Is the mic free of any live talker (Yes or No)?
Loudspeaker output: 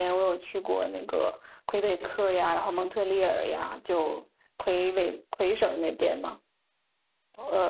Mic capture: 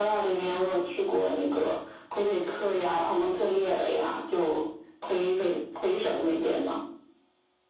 Yes